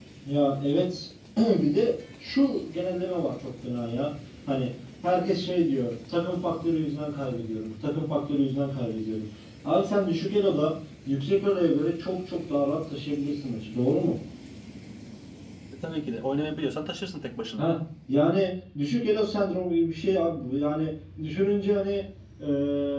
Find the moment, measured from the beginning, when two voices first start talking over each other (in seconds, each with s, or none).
none